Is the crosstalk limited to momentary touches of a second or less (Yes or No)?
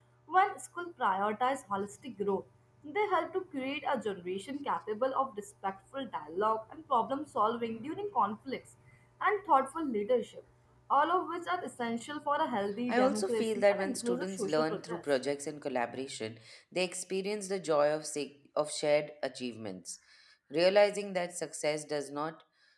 No